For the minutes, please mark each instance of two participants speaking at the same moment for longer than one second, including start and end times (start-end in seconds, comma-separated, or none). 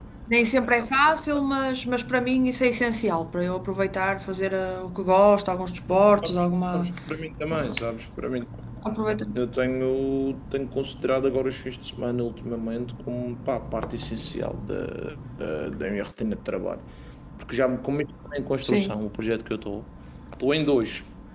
none